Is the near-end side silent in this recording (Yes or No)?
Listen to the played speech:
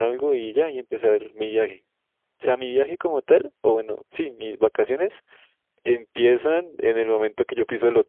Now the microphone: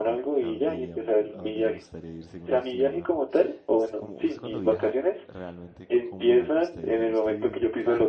No